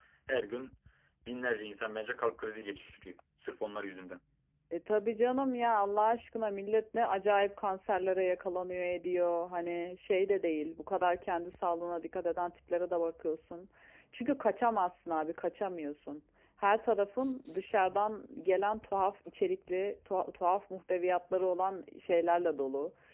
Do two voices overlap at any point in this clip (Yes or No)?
No